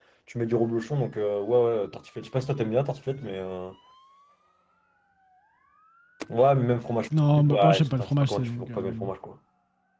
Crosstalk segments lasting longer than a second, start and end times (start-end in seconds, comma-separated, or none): 7.4-8.8